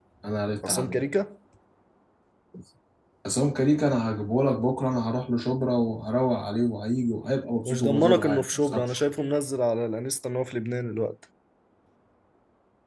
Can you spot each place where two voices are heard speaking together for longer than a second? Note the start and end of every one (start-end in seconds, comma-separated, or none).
7.7-9.0